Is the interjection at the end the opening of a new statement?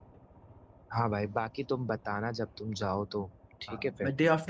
Yes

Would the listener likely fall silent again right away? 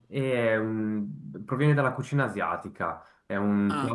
Yes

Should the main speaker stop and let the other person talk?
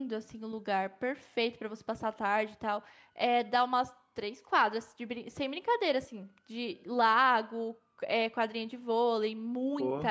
No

